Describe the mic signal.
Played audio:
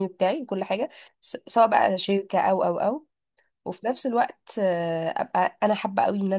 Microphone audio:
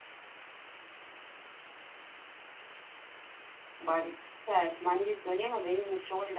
user only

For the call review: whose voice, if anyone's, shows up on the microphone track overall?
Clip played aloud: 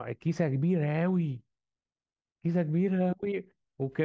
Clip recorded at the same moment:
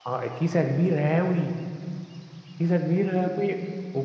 echo only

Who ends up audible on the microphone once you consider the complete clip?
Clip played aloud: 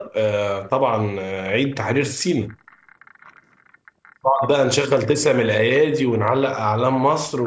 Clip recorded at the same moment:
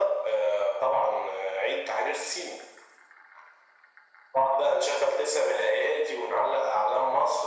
echo only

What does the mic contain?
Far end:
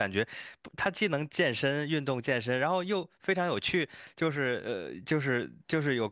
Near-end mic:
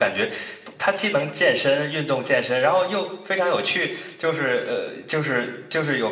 echo only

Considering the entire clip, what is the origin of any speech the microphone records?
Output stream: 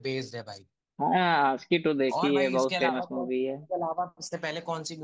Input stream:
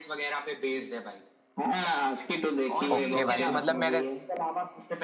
both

